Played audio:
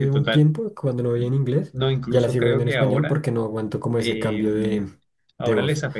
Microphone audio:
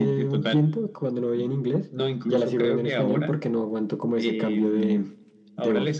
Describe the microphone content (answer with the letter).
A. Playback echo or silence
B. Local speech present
A